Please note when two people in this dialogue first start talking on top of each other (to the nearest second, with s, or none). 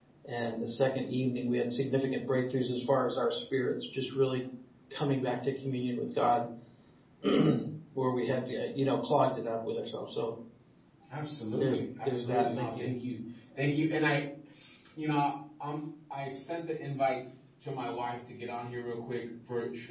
12 s